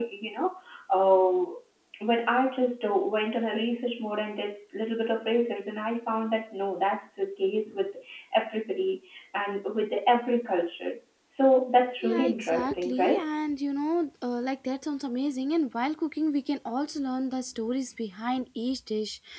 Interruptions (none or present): present